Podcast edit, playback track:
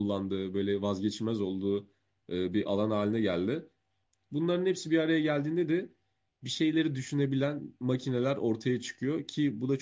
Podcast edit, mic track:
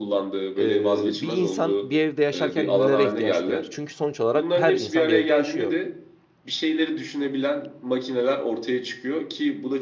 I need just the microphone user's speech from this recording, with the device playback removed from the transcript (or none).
e, bir insan bir evde yaşarken nelere ihtiyaç duyar? Çünkü sonuç olarak her insan bir evde yaşıyor